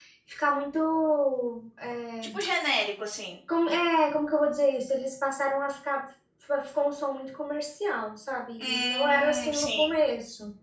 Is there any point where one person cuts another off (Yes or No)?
Yes